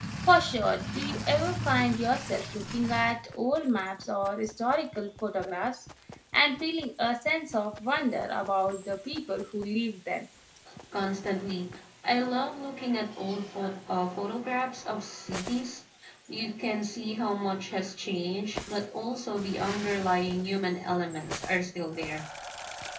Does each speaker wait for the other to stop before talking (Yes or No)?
Yes